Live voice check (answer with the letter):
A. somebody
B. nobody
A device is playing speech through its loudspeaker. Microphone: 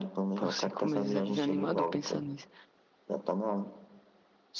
A